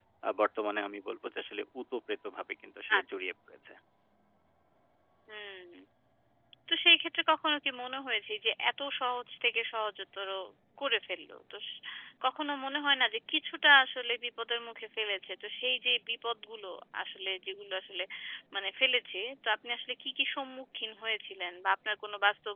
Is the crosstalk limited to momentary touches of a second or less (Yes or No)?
Yes